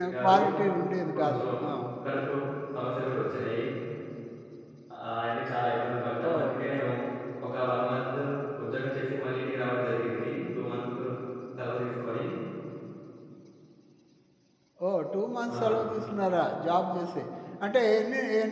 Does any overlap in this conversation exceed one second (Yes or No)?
No